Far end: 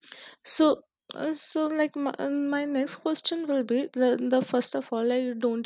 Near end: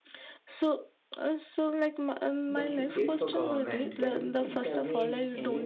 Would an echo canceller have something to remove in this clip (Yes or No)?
Yes